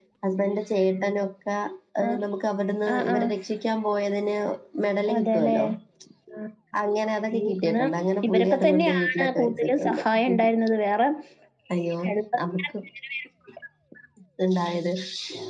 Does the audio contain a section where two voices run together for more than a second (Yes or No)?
Yes